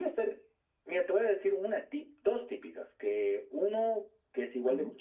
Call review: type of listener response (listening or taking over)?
listening